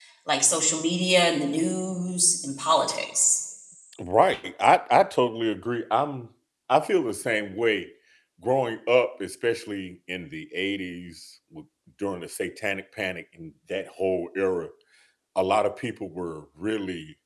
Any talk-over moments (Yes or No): No